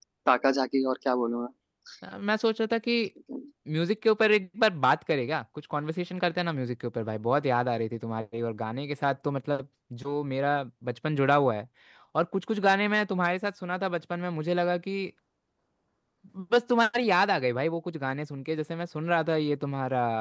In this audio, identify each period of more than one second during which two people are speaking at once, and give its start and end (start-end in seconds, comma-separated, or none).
none